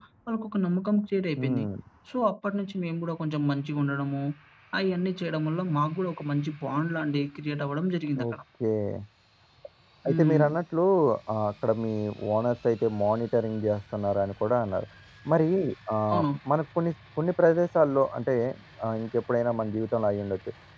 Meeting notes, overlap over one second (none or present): none